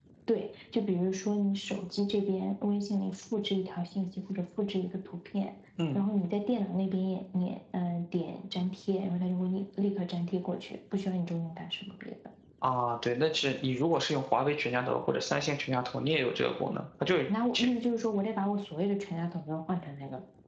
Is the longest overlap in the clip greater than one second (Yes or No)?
No